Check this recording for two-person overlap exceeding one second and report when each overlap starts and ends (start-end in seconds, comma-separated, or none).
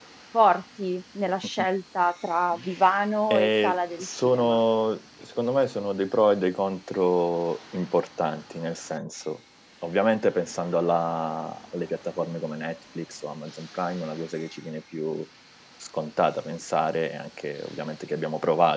3.3-4.6